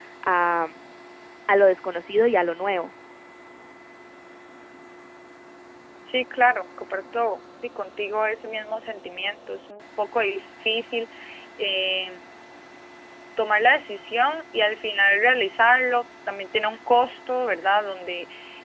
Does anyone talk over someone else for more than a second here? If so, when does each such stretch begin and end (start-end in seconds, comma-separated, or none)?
none